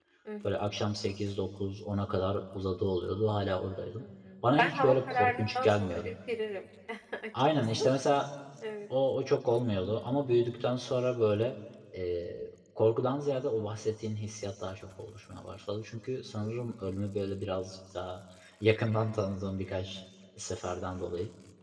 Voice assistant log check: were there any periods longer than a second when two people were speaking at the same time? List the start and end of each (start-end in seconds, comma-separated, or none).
4.6-6.1